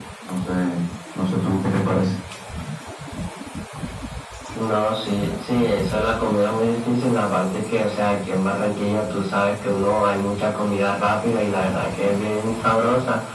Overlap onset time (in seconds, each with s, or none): none